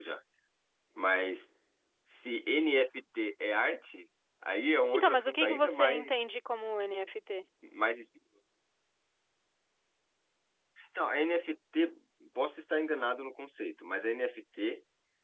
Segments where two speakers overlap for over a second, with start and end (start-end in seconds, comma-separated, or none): 4.9-6.4